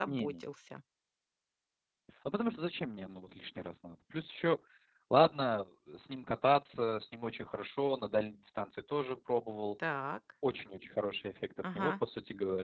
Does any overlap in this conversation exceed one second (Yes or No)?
No